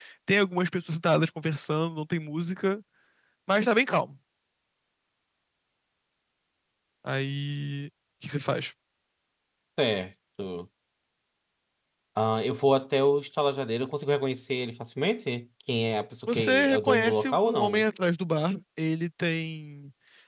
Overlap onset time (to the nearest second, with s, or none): 16 s